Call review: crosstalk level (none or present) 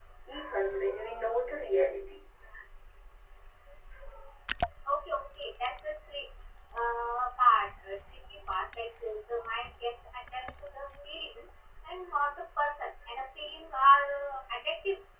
none